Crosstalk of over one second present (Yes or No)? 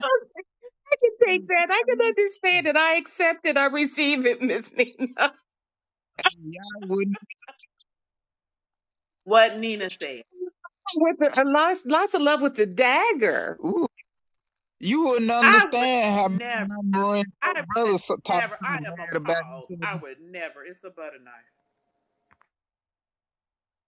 Yes